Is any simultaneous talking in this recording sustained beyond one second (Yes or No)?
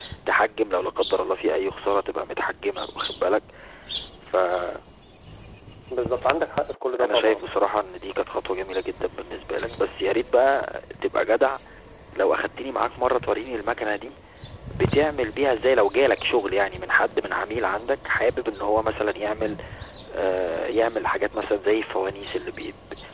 No